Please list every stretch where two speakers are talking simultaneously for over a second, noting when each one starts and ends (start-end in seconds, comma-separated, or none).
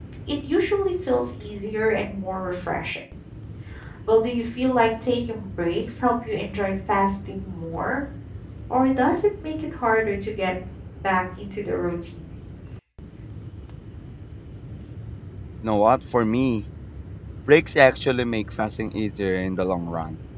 none